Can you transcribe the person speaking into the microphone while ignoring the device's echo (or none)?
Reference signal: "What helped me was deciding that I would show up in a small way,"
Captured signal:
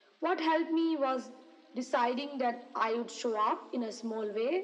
none